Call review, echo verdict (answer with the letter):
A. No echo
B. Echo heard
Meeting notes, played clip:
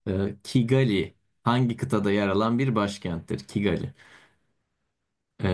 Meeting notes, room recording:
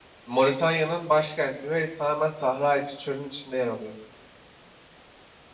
A